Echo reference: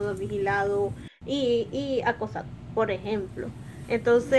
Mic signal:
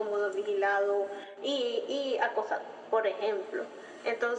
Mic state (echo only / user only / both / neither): echo only